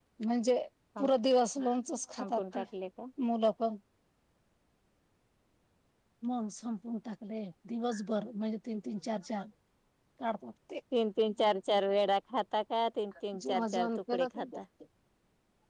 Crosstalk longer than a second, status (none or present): present